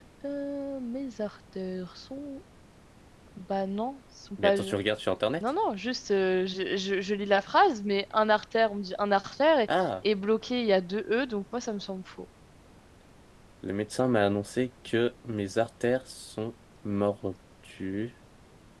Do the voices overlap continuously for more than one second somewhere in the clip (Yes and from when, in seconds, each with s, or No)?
No